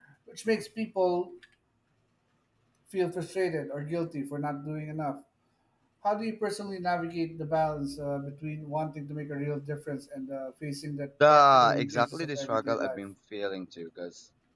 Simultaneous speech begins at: 11.2 s

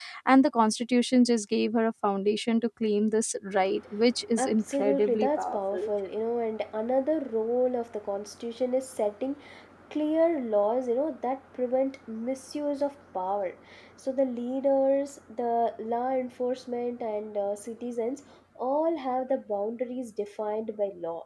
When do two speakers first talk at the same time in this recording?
4.4 s

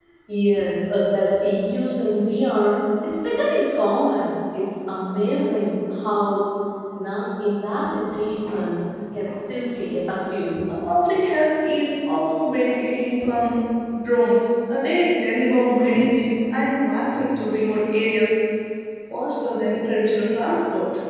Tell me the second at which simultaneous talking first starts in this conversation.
none

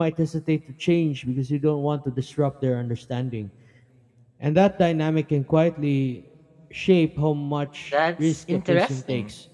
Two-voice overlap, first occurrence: 7.9 s

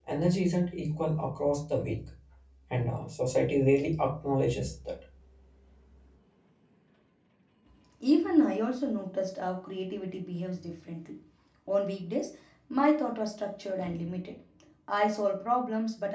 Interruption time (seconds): none

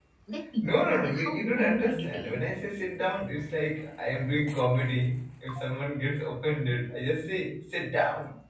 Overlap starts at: 0.6 s

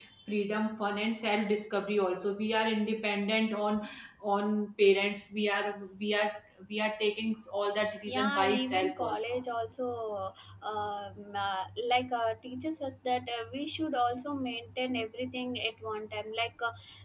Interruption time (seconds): 7.8 s

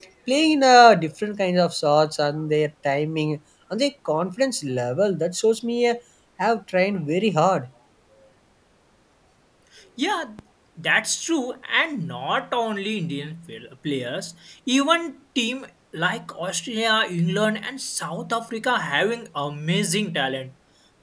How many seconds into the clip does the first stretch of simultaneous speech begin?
none

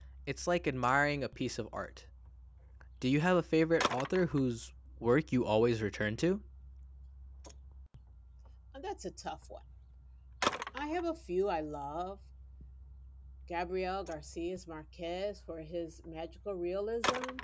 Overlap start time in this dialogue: none

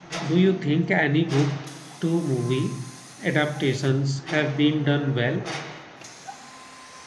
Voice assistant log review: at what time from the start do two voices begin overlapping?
none

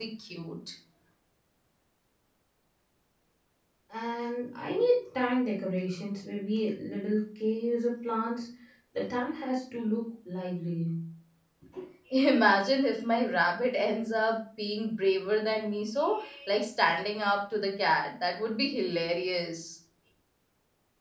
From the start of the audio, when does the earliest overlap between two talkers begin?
none

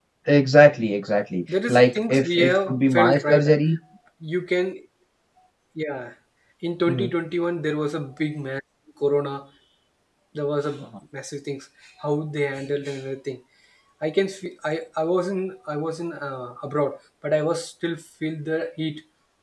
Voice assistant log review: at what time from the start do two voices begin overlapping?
1.5 s

